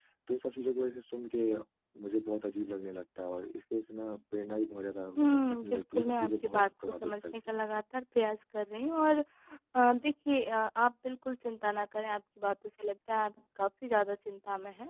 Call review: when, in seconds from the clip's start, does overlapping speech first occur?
5 s

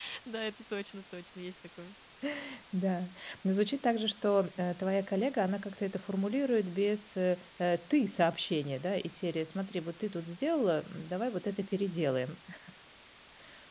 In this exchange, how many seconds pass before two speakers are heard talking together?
none

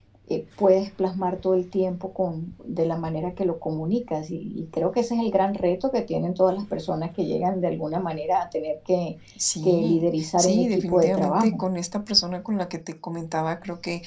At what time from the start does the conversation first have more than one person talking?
10 s

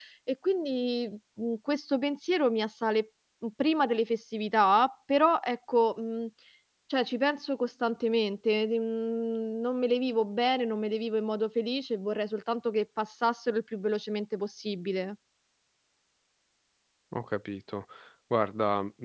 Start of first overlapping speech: none

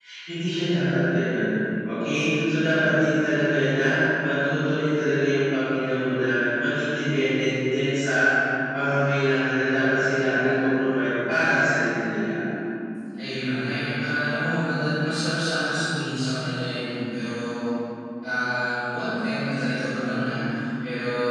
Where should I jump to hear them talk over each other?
none

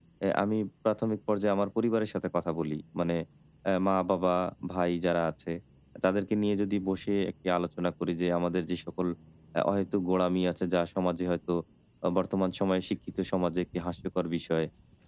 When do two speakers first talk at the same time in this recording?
none

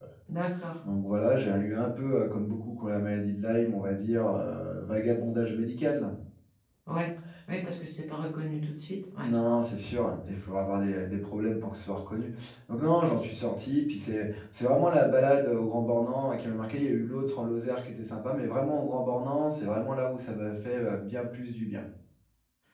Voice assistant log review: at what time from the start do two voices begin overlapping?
none

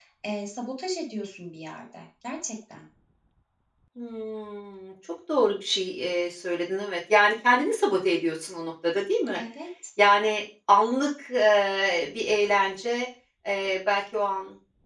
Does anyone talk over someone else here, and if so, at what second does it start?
none

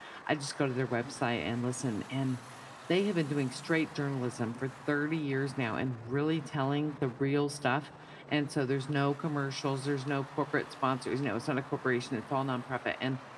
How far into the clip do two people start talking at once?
none

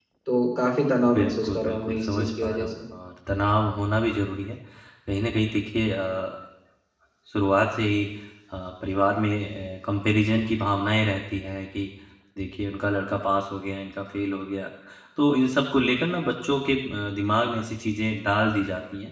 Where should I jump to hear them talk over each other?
1 s

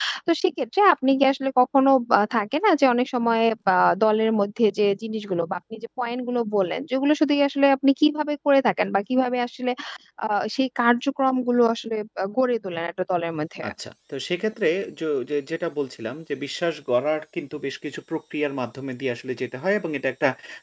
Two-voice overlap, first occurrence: none

